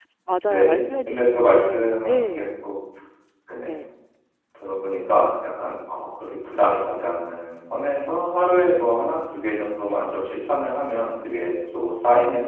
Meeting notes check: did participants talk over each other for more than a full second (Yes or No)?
Yes